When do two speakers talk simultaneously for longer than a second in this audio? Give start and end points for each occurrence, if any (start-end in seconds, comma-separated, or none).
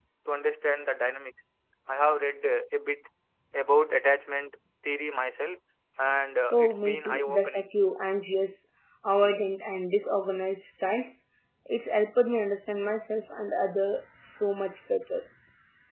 6.5-7.7